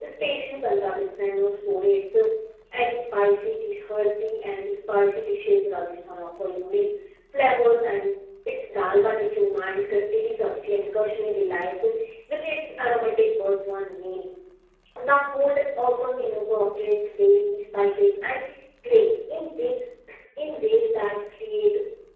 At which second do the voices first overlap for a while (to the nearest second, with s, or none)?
none